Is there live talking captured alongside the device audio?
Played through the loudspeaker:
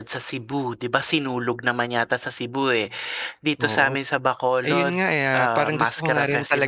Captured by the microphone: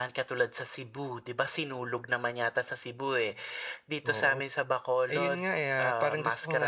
No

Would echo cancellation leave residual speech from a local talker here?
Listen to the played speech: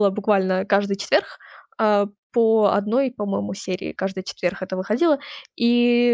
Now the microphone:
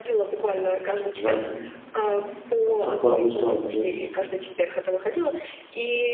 Yes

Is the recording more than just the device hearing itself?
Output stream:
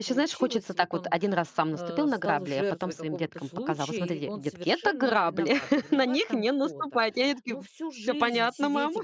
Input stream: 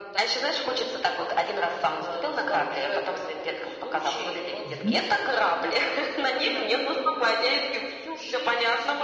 Yes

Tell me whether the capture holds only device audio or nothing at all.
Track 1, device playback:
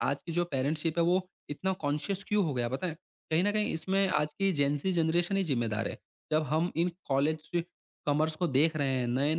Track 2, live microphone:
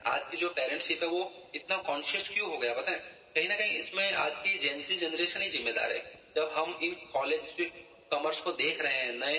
Yes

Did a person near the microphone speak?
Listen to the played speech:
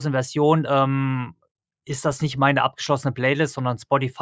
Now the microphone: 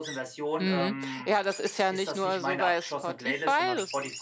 Yes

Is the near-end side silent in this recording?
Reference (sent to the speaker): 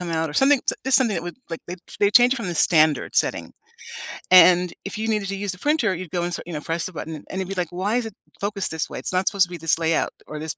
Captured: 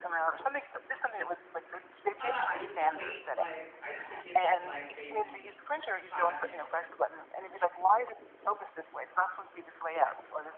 No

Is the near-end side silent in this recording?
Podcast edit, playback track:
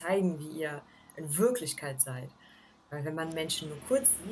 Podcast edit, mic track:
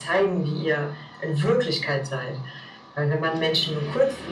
Yes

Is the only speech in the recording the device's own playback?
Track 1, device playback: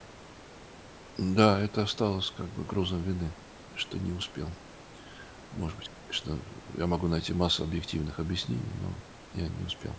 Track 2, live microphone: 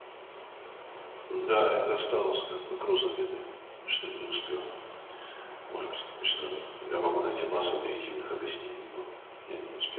Yes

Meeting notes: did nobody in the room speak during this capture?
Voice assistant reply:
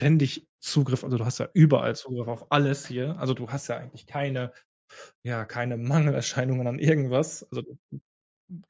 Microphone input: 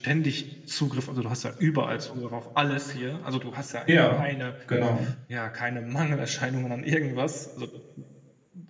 No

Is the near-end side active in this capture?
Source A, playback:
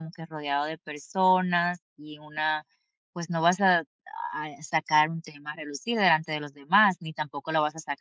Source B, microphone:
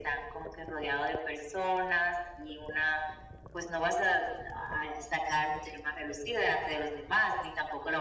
No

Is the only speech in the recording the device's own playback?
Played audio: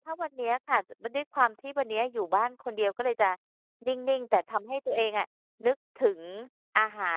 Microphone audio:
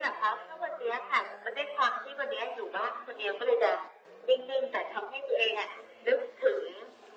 Yes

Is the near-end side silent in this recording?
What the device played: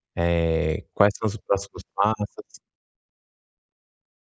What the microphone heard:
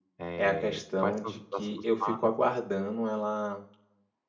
No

